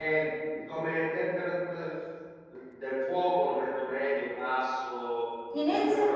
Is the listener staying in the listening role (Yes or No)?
No